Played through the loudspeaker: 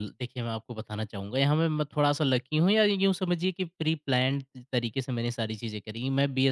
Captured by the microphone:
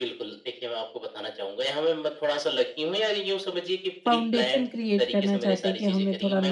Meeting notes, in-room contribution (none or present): present